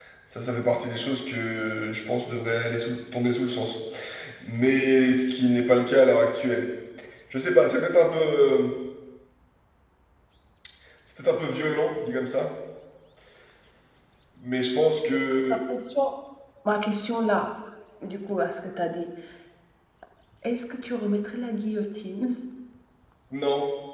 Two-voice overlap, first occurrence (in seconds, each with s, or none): none